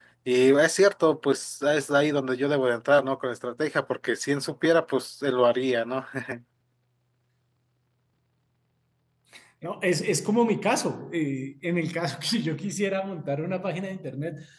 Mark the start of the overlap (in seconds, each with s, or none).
none